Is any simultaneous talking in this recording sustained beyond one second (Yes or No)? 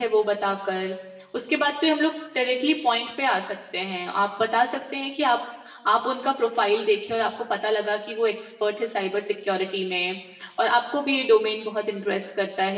No